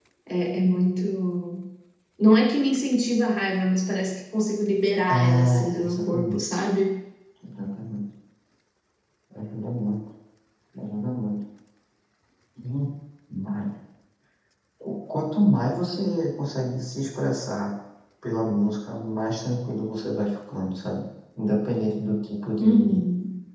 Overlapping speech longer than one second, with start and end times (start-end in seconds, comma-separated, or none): 5.1-6.6